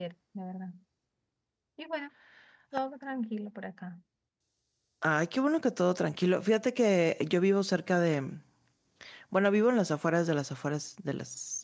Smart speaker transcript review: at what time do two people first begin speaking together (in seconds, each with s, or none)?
none